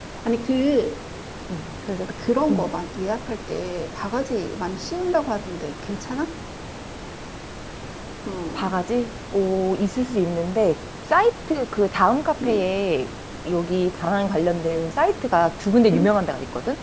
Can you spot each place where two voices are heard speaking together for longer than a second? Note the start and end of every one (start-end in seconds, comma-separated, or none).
none